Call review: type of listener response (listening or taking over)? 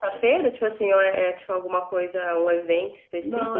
taking over